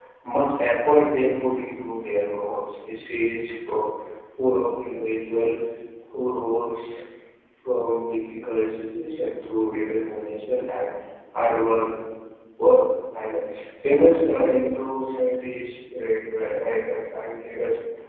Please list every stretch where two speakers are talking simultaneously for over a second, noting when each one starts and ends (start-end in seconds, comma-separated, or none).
none